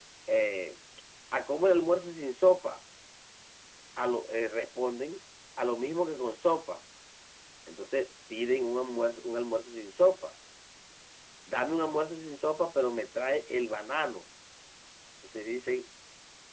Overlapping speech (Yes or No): No